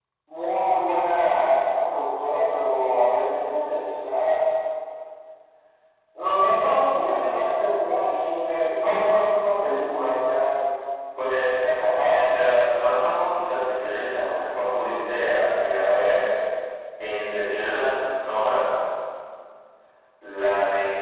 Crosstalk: none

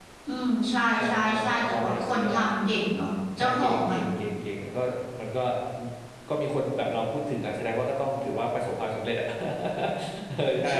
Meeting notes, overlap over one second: present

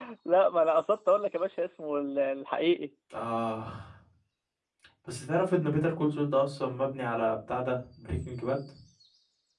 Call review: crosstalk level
none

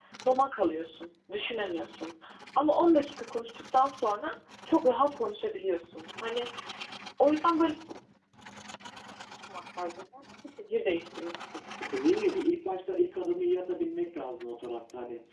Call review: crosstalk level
none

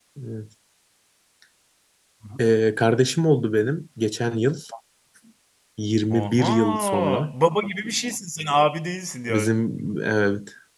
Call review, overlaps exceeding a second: present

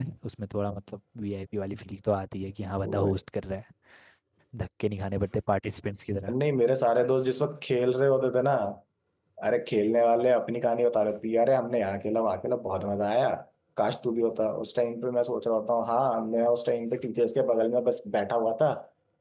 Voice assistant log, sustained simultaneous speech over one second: none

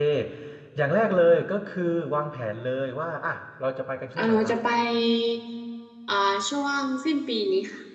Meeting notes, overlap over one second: none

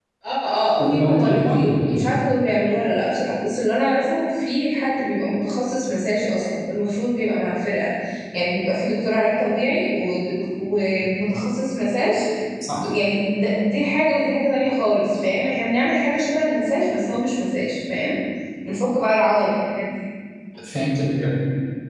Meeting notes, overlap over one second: present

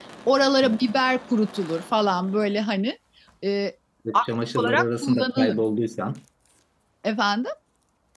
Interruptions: present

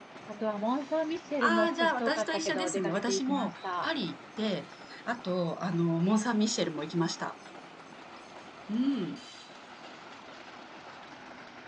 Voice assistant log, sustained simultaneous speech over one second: present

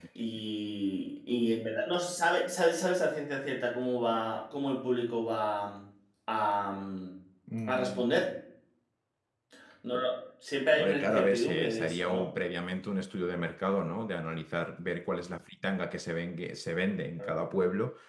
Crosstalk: present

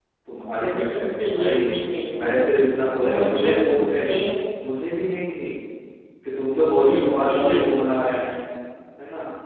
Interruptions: present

